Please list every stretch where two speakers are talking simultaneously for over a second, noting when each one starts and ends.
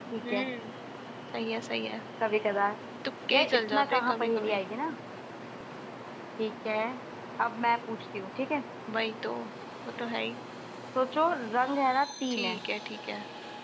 3.3-4.6

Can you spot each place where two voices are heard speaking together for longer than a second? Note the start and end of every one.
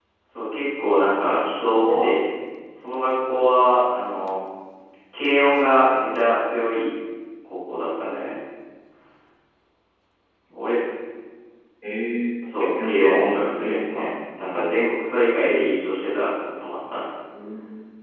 12.6-14.0

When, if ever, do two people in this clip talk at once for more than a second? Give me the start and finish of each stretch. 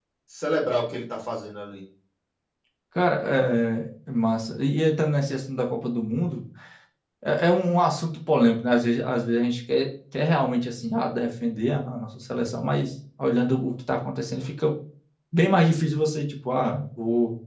none

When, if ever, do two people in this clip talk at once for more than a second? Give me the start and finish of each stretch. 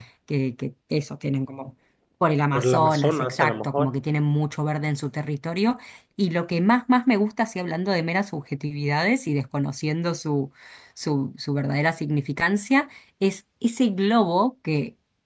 2.5-3.9

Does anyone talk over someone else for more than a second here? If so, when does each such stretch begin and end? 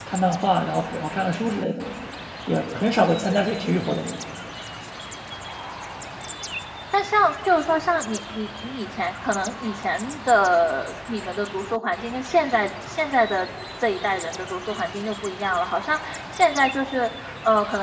none

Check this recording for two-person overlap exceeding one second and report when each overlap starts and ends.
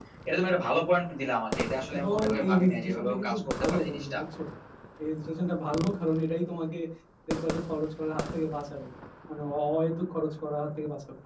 1.9-4.2

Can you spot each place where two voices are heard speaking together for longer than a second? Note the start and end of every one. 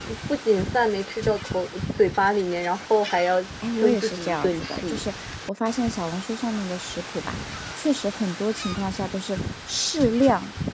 3.8-5.0

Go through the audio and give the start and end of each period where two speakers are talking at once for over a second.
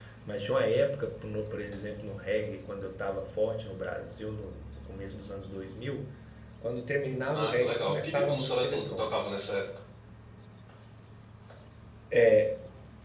7.3-9.2

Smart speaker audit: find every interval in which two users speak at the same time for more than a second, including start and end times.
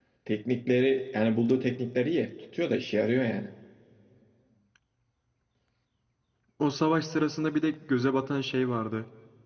none

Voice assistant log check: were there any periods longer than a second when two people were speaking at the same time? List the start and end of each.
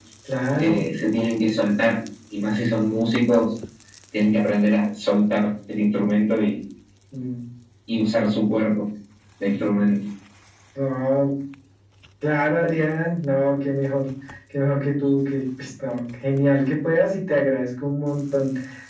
none

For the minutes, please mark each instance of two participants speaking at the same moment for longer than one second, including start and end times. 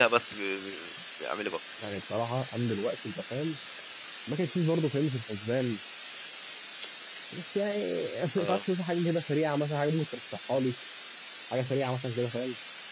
none

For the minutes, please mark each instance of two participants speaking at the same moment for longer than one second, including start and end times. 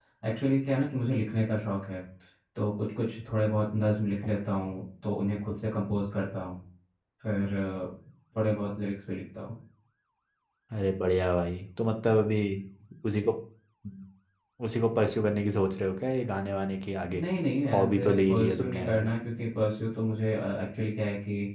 17.7-19.1

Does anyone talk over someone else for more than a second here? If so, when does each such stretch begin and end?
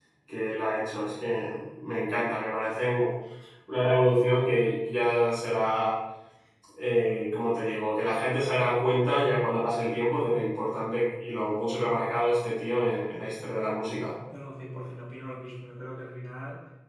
none

